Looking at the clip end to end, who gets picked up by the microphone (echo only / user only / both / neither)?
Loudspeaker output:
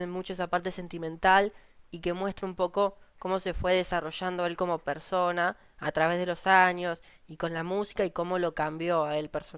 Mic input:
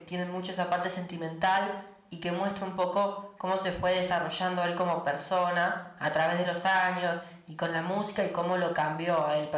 echo only